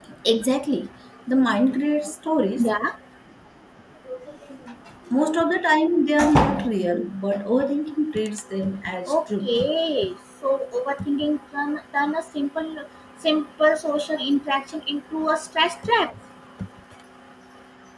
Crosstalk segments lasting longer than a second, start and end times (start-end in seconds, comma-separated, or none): none